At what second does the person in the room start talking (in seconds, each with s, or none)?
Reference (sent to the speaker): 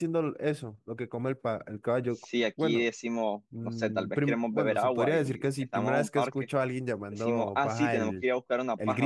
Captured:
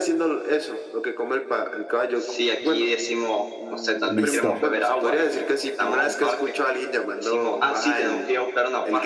4.1 s